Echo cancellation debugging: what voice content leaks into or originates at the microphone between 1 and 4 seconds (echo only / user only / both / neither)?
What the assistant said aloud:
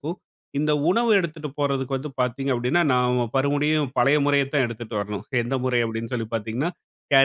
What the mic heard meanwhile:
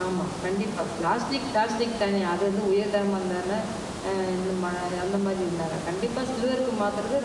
user only